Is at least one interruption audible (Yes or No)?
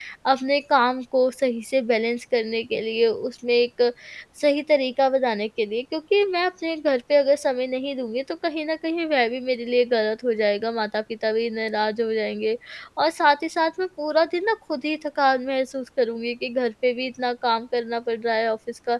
No